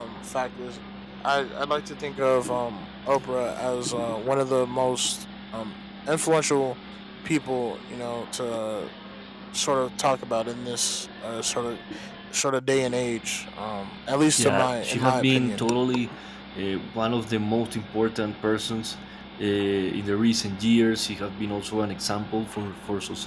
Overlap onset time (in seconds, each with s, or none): 14.4 s